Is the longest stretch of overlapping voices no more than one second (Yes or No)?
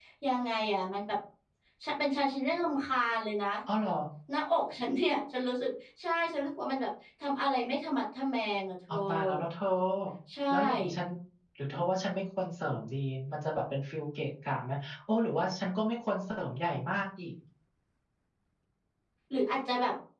Yes